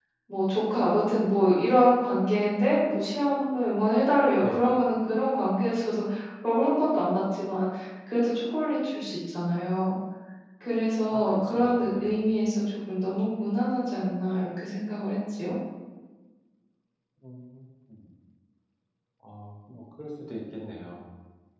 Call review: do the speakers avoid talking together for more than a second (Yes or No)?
No